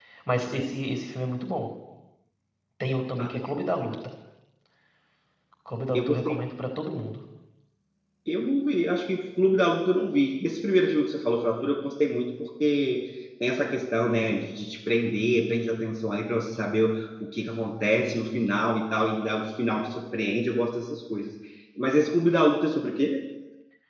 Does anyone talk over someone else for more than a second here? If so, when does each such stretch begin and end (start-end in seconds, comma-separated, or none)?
none